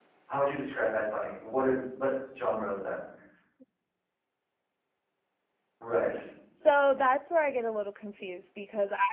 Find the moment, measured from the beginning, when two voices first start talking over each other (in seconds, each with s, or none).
none